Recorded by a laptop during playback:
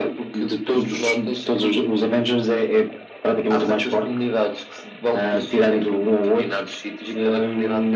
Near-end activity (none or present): none